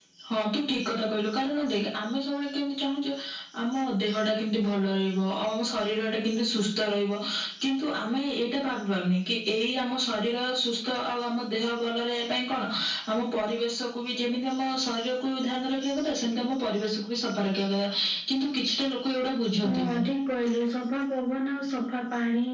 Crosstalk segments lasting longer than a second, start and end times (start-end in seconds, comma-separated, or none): none